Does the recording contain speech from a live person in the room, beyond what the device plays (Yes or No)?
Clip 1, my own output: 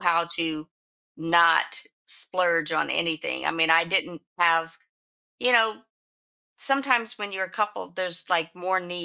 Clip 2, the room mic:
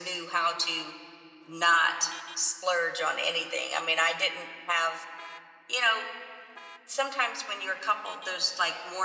No